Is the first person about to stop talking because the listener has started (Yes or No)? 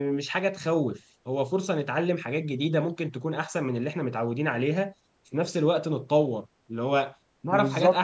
Yes